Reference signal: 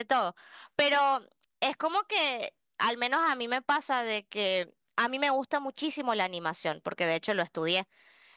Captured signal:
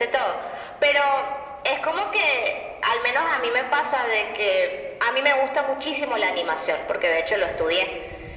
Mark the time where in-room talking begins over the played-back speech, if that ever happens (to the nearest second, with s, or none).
none